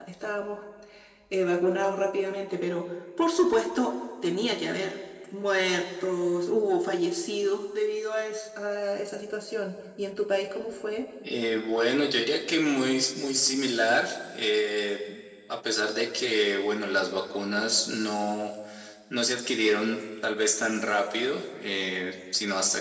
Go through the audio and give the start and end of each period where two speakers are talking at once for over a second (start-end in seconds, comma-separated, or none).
none